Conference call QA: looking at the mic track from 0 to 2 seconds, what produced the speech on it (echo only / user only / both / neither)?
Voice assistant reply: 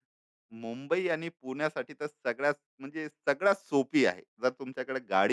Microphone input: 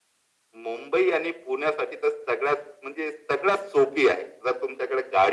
echo only